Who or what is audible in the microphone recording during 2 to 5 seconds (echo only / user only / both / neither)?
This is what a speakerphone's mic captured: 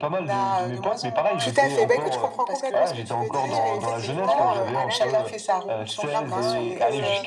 both